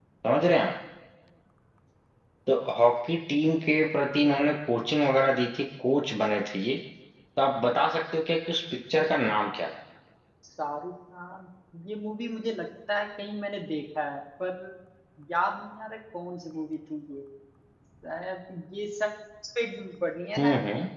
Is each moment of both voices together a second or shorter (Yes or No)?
Yes